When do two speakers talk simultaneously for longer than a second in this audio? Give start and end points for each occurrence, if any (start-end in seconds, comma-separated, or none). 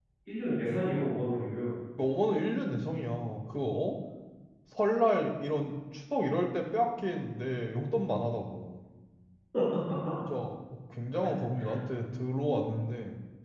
none